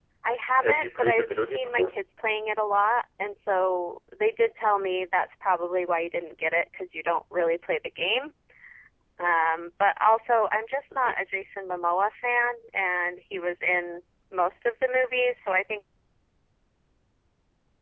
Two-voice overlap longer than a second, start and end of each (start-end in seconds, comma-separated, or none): 0.6-2.0